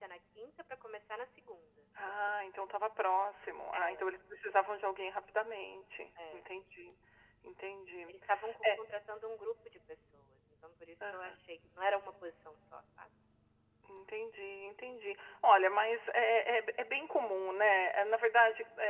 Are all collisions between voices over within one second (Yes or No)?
Yes